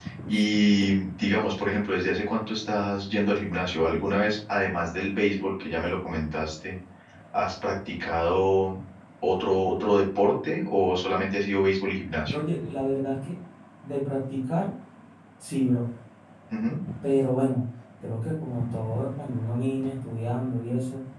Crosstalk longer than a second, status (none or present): none